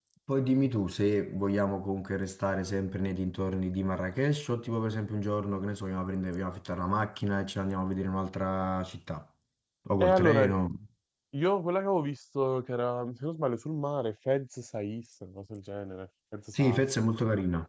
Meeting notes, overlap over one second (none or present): none